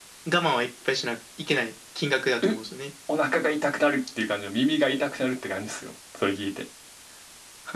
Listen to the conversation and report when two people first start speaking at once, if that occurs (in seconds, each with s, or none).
none